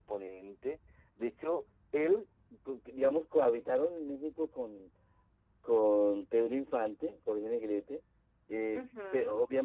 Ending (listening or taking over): listening